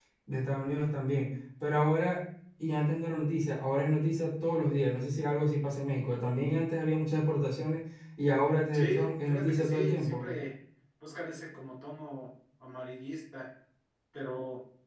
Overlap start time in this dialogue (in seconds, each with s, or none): 8.7 s